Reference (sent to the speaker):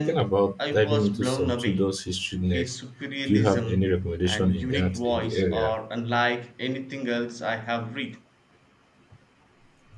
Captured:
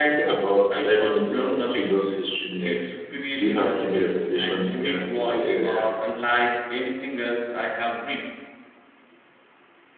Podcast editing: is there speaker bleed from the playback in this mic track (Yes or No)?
Yes